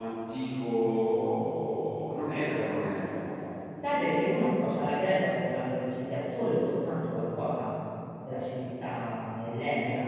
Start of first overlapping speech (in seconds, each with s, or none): none